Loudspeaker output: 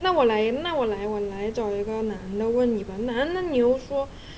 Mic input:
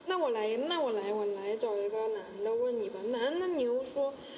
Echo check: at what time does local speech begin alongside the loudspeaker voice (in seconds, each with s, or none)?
none